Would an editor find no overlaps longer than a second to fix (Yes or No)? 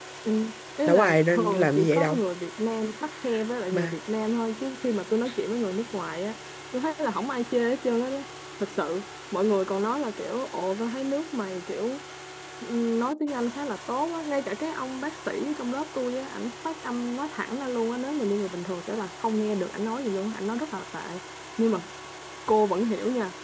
No